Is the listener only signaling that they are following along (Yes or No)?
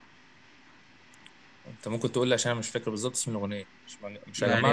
No